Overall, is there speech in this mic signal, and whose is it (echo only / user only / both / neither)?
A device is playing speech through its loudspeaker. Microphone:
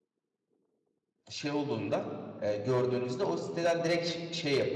user only